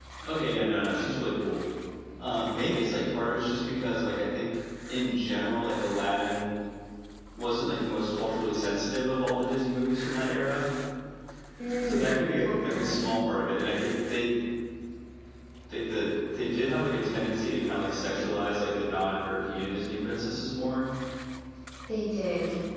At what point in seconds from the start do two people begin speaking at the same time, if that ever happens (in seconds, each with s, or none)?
11.8 s